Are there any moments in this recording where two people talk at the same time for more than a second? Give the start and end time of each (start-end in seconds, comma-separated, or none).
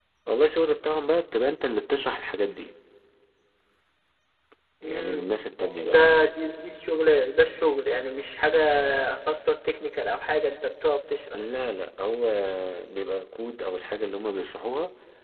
none